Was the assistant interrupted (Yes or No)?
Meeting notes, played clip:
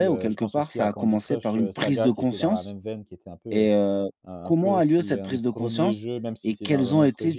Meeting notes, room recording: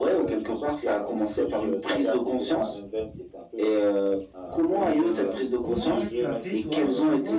Yes